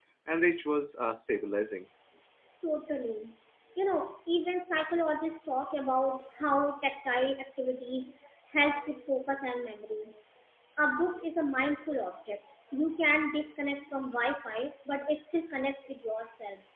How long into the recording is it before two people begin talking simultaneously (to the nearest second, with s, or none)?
none